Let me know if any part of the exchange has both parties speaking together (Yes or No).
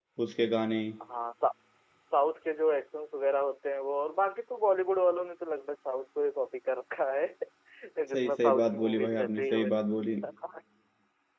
Yes